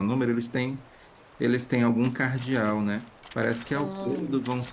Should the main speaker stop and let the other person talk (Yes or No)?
No